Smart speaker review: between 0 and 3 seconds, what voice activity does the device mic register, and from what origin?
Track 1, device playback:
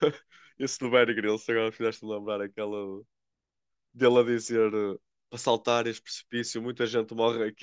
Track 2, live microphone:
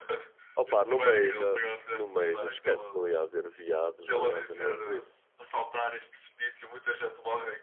both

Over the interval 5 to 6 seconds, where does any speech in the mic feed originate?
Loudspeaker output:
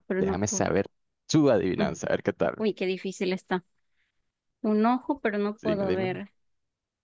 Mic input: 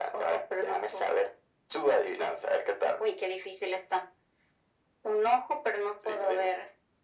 echo only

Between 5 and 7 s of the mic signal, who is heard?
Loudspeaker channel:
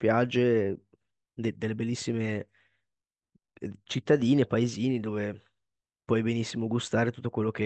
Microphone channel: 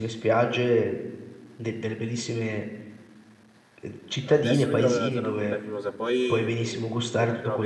both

